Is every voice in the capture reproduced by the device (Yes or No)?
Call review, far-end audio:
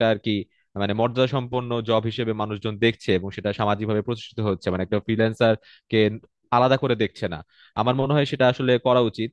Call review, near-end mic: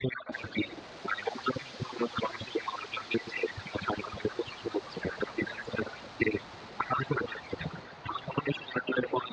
Yes